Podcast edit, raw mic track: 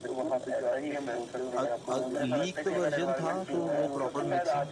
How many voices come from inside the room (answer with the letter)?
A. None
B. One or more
B